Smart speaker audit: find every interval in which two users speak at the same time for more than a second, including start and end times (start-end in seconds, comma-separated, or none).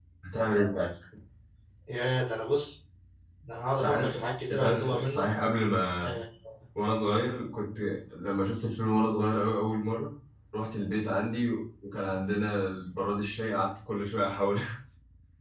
3.8-5.2